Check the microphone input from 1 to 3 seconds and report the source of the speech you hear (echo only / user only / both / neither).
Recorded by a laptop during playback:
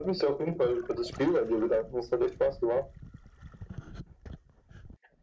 echo only